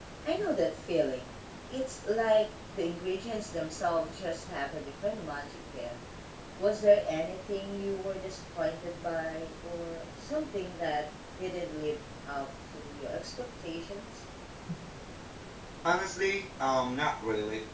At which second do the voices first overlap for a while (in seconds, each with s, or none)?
none